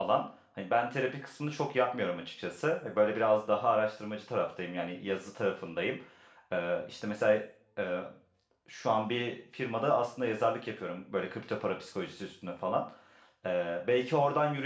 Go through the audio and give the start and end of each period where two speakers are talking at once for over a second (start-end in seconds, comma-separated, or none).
none